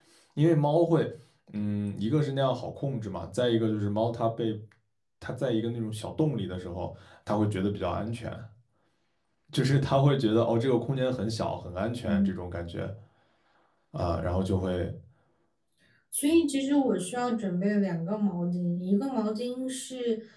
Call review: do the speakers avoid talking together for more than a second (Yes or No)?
Yes